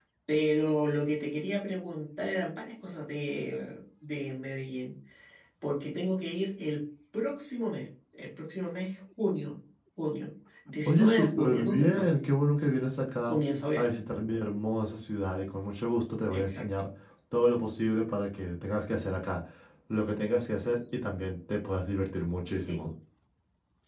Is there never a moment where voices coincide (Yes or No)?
No